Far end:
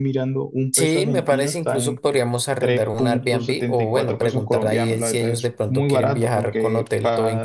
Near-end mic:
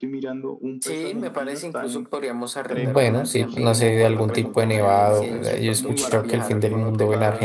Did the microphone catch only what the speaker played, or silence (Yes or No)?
No